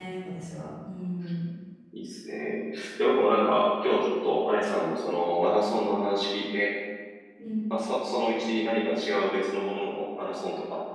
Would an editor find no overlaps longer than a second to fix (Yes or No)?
Yes